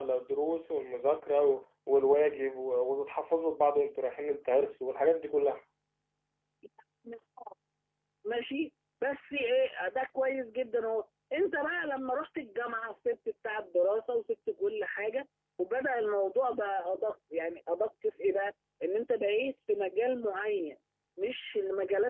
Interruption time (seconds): none

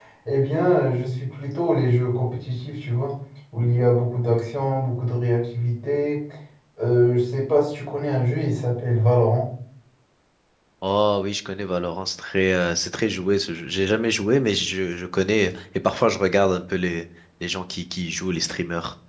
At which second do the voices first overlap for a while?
none

